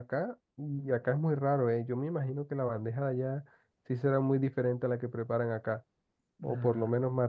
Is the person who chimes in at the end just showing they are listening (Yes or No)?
Yes